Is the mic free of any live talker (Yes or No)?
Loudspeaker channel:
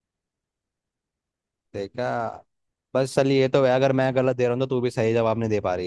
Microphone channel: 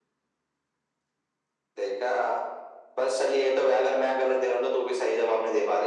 Yes